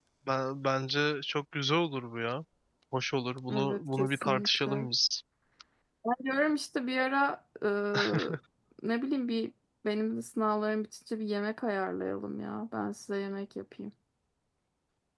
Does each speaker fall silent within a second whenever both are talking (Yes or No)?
No